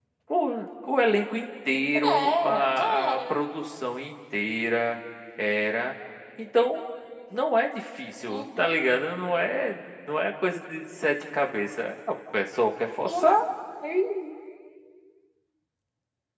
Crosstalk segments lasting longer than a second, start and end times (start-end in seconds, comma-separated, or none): 2.0-3.4